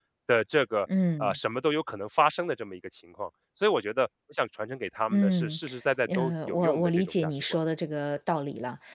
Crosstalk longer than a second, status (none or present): present